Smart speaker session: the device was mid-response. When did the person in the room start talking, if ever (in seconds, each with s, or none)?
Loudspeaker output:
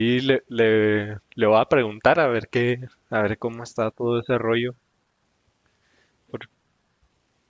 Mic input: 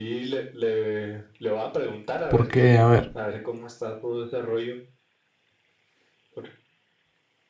2.3 s